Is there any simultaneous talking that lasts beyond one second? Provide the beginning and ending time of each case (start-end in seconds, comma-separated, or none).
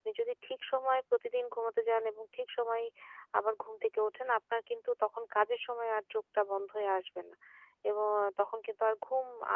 none